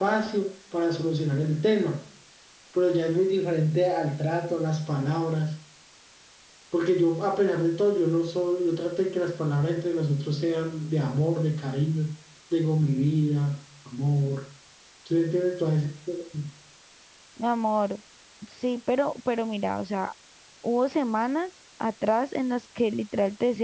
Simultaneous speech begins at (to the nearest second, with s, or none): none